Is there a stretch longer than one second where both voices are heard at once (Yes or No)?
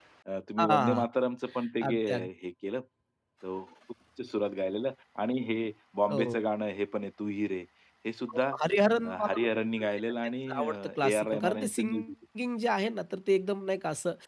Yes